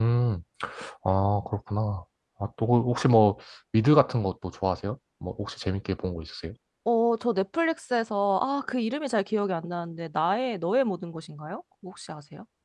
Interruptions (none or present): none